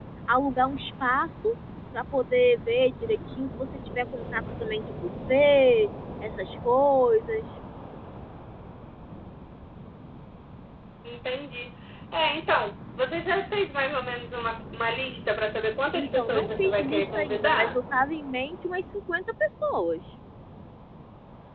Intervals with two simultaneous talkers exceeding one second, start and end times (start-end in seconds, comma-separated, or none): 15.9-17.8